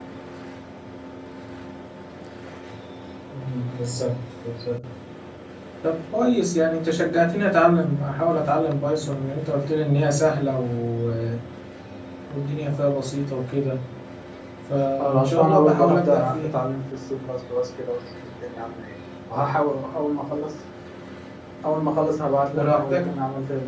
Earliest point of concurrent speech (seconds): 15.0 s

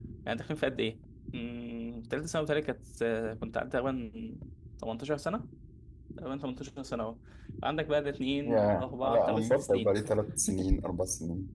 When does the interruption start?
8.4 s

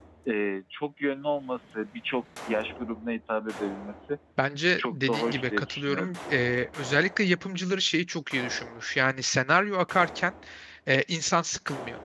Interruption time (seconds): 4.8 s

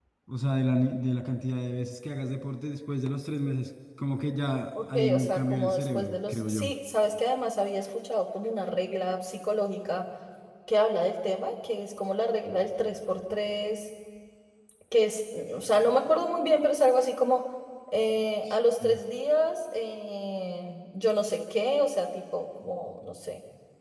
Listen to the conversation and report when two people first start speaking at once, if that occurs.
4.8 s

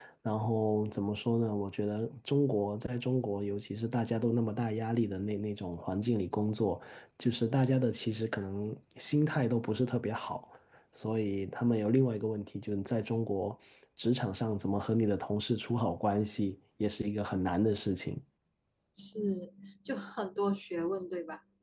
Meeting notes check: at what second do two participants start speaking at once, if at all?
none

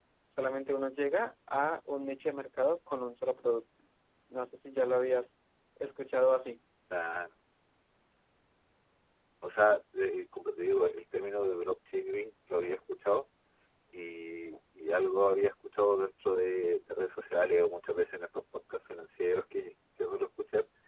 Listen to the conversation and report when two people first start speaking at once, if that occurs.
none

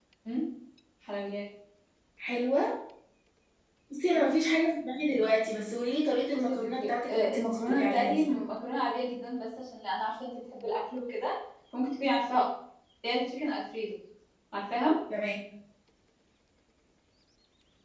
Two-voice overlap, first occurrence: 6.3 s

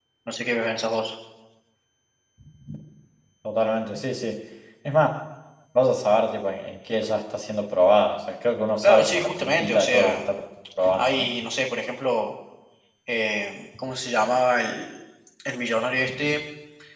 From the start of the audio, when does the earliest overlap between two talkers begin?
8.8 s

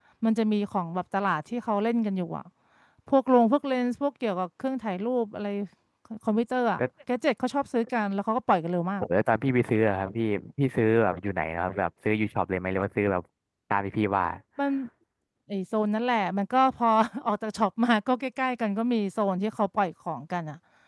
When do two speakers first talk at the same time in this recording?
none

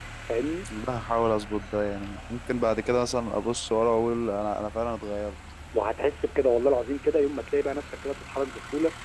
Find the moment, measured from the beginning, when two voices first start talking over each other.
none

